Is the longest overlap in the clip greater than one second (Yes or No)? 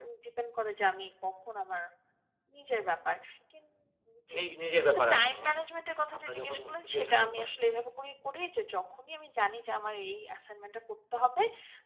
Yes